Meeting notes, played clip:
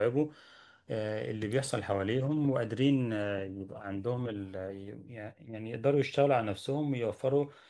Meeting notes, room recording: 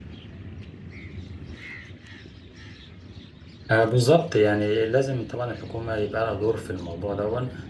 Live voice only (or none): آه، بالظبط يعني لازم طبعا الحكومة يبقى لها دور في الموضوع دون